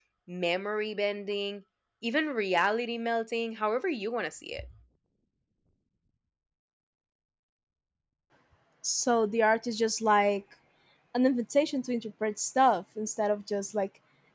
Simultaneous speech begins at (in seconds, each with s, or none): none